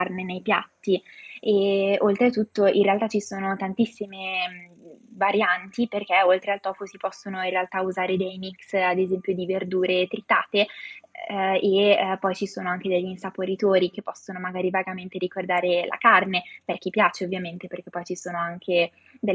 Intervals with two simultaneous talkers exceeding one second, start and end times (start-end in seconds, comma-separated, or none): none